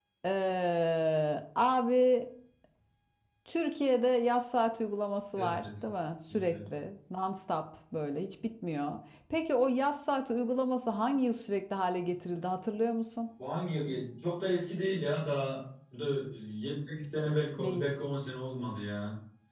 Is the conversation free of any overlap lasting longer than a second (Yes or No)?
Yes